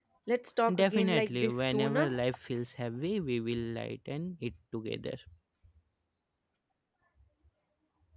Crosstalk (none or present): present